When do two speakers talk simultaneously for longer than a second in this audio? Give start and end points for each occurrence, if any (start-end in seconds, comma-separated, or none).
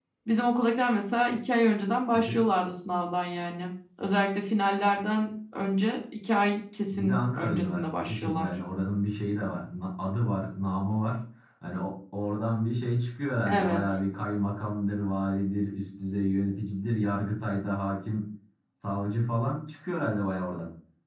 6.9-8.5